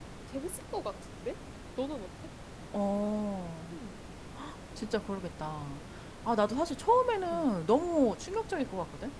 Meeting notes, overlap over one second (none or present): none